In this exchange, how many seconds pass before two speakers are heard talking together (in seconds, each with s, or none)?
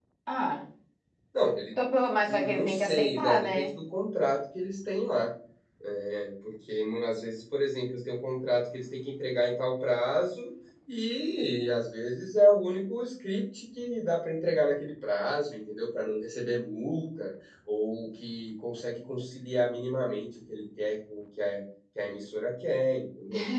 2.3 s